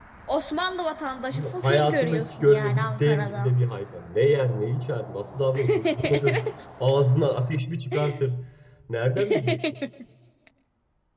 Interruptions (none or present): present